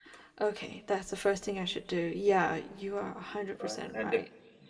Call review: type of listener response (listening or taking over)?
taking over